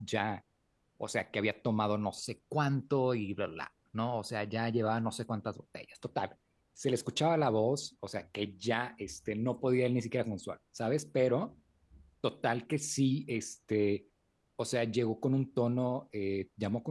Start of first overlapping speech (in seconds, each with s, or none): none